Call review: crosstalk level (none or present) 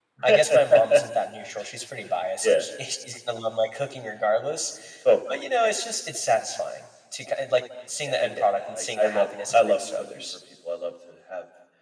present